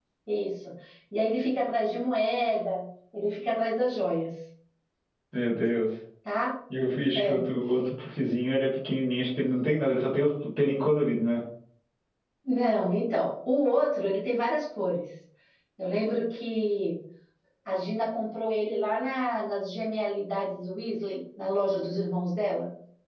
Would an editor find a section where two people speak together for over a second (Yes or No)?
No